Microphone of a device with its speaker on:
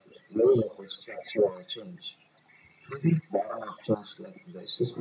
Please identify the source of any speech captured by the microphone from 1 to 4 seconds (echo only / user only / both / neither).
echo only